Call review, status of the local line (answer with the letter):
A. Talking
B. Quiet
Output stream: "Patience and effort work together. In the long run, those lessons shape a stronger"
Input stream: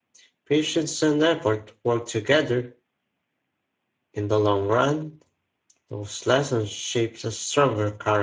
B